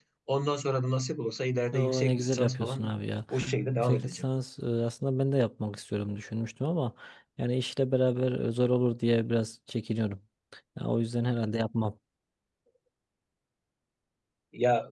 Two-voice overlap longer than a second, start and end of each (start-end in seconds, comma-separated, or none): 1.7-3.0